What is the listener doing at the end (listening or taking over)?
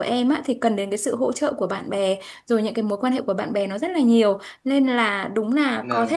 listening